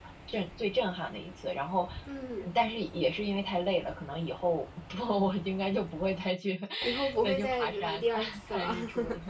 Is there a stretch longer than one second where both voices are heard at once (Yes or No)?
Yes